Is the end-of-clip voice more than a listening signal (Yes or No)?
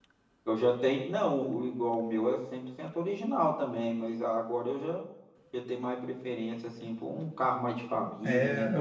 Yes